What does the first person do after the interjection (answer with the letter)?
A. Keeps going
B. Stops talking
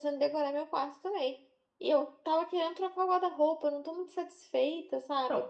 B